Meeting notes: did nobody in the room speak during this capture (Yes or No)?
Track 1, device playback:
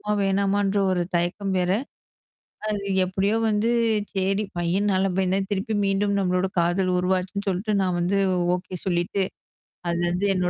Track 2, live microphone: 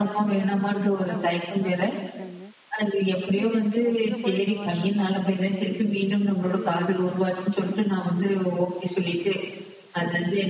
No